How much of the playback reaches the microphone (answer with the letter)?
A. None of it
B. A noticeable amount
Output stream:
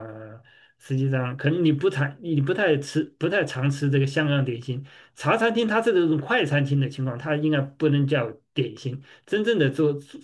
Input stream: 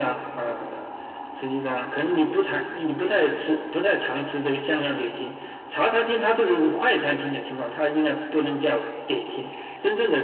B